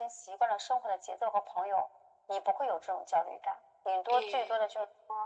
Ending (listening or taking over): listening